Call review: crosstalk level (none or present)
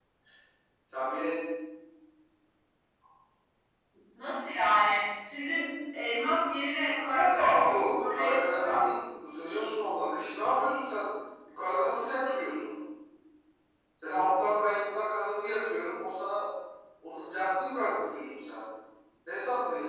present